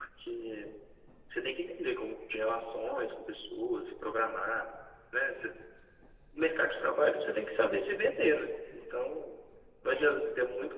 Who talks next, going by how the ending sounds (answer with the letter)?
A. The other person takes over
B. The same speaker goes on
B